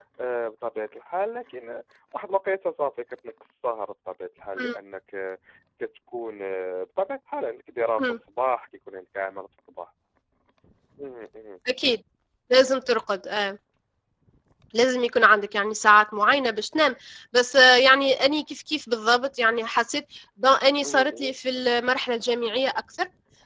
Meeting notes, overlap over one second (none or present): none